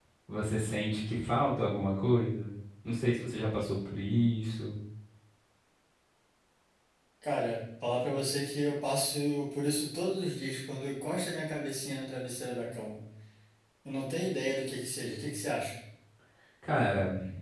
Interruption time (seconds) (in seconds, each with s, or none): none